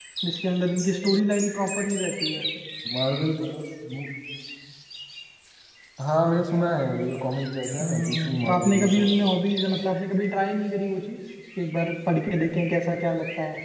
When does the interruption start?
7.8 s

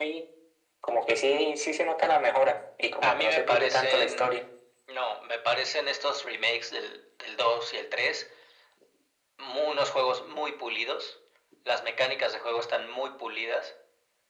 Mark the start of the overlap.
3.0 s

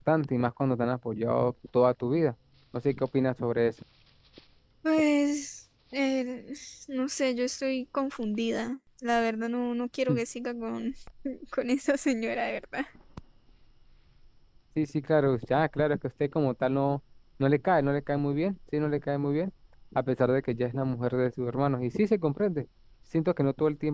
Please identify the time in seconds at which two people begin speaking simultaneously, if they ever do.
none

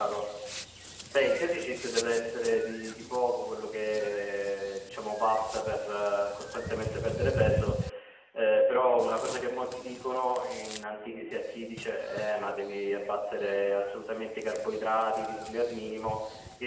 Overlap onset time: none

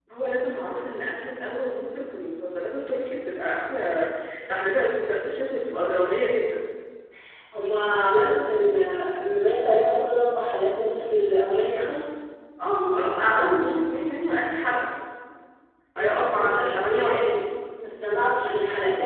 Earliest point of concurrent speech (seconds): 16.0 s

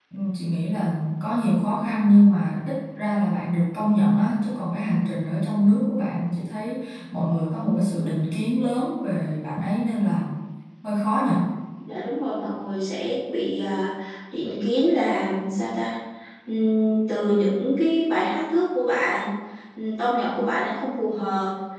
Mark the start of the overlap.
none

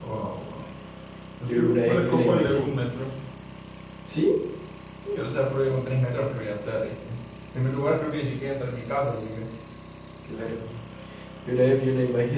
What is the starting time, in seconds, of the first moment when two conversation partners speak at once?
1.5 s

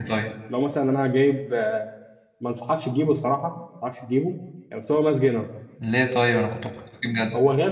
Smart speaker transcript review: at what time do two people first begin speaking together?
none

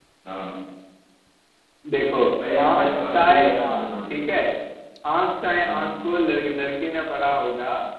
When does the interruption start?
2.6 s

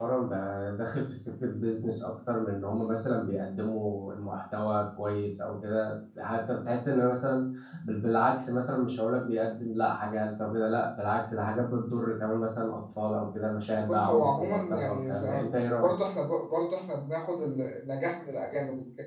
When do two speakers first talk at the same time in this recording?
13.8 s

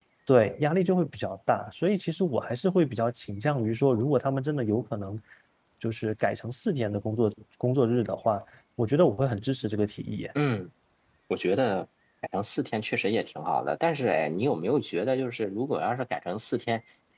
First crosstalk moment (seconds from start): none

